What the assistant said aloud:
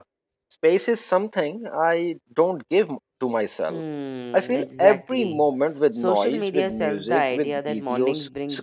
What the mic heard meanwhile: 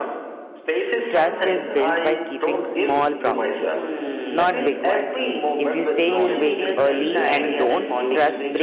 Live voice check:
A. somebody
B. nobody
A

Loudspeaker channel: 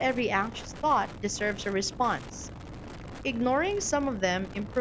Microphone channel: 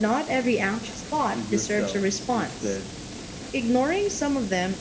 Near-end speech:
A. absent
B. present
B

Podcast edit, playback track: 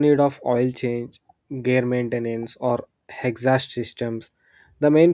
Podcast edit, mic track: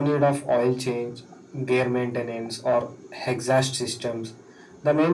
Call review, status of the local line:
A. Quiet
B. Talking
A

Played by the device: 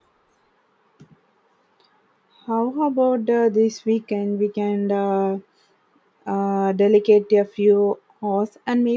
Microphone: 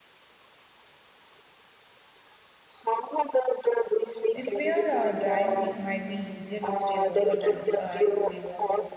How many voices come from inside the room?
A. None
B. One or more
B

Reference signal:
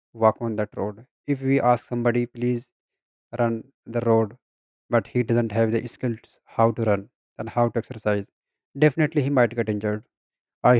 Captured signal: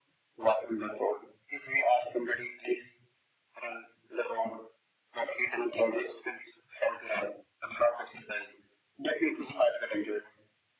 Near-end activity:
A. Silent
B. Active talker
A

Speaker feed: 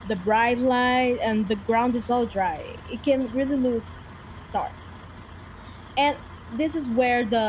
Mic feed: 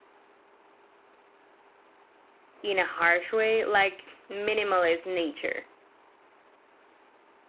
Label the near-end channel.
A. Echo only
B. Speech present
B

